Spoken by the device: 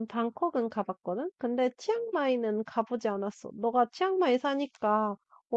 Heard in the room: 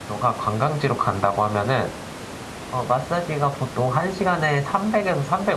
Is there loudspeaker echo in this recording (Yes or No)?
No